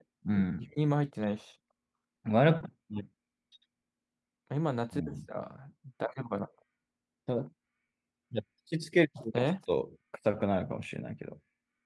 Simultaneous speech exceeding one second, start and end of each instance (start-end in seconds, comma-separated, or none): none